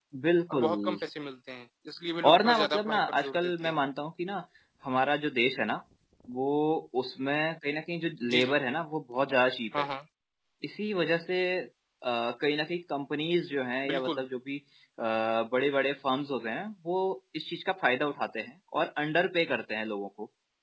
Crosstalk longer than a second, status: present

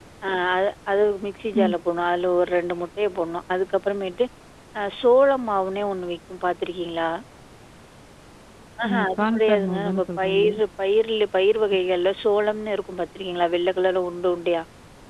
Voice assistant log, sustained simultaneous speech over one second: present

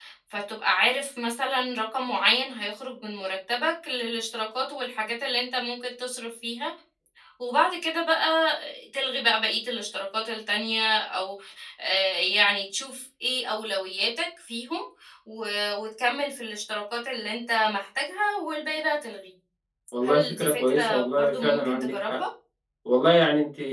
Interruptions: present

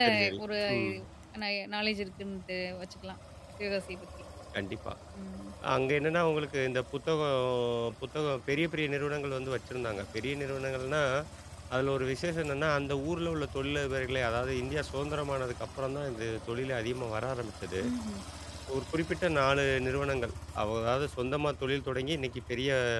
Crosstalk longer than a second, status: none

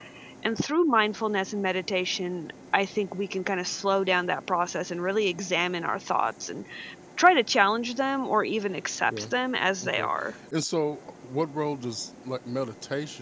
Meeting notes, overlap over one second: none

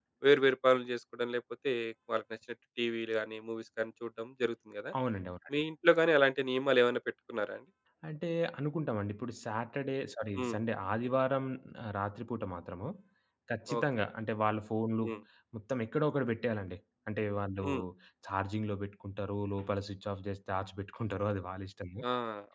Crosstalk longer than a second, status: none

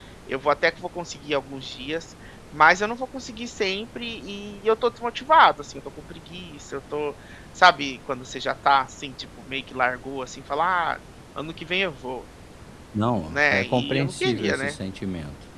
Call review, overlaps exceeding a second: present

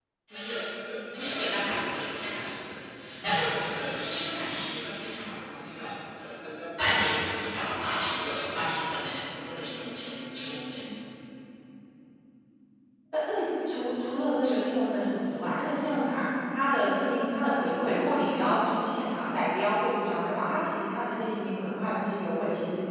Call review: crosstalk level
none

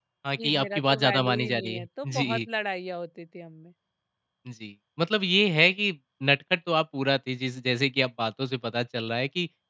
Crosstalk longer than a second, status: present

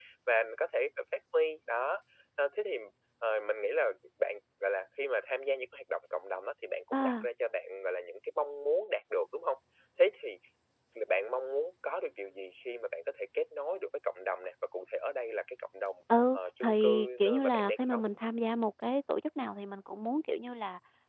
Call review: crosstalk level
present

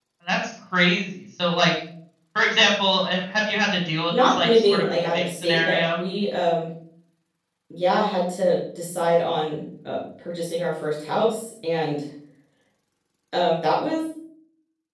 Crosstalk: present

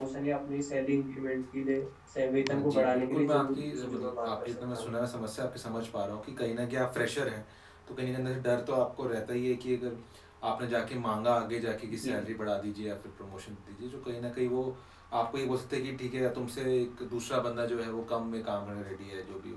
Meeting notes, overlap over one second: present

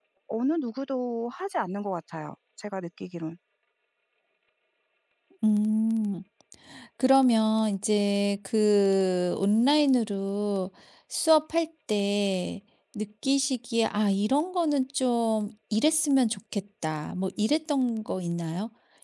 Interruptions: none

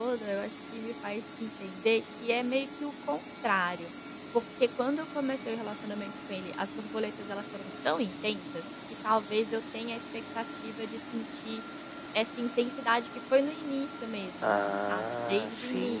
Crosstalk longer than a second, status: present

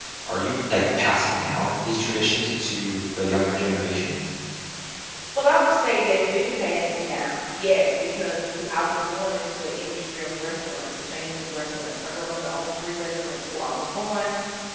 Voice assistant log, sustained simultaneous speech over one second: none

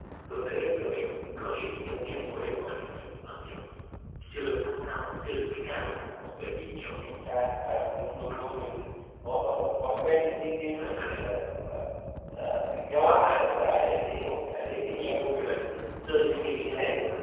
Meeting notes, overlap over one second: present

